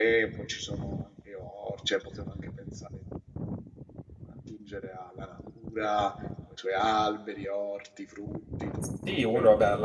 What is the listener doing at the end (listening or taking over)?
taking over